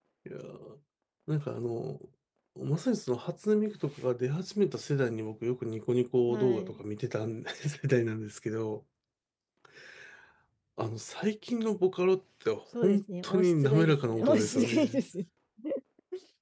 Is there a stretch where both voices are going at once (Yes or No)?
Yes